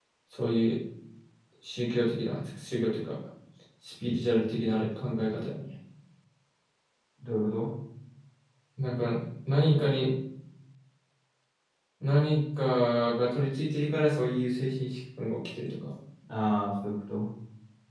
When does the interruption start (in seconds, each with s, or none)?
none